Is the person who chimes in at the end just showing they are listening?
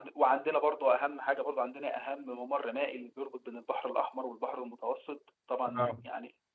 Yes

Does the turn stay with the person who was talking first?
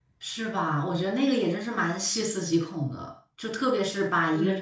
Yes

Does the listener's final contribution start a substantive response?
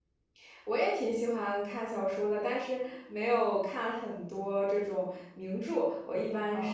No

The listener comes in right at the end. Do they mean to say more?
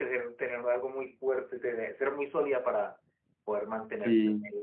Yes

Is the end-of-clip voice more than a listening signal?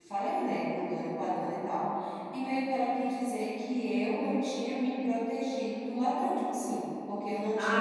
Yes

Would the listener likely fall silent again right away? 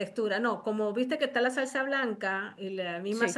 Yes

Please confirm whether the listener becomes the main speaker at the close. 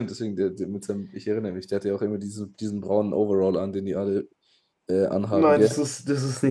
Yes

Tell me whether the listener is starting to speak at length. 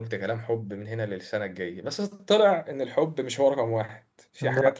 No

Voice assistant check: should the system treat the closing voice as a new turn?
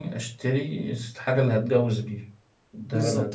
Yes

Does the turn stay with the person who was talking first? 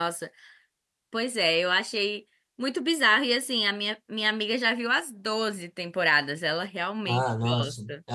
No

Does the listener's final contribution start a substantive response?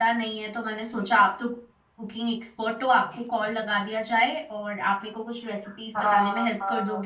Yes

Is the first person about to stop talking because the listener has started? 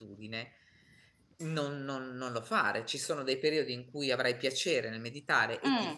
No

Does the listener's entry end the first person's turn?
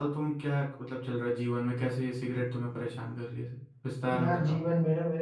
Yes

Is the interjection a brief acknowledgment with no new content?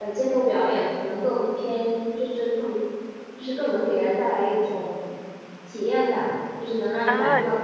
No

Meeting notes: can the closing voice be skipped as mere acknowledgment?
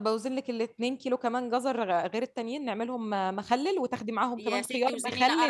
No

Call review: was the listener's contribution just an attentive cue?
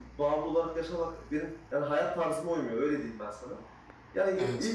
Yes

